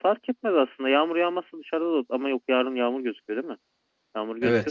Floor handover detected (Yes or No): Yes